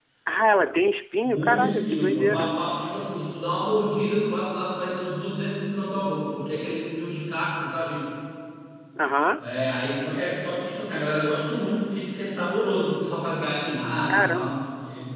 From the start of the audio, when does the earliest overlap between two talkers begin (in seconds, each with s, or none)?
1.2 s